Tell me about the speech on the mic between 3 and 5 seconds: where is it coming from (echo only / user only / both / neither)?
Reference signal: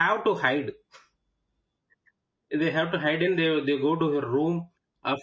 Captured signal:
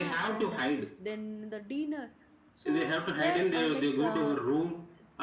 both